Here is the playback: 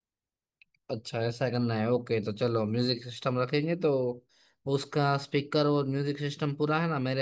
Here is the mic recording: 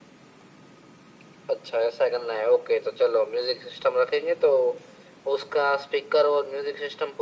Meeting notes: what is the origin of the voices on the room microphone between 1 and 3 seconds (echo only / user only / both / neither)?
echo only